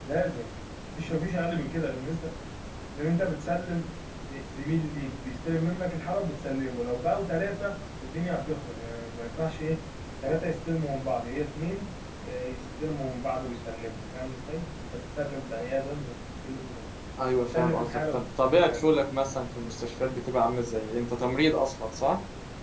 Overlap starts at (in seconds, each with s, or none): 17.5 s